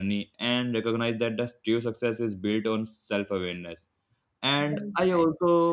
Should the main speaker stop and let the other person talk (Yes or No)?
No